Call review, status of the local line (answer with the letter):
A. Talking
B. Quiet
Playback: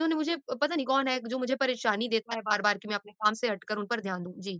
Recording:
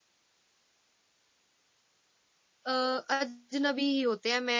A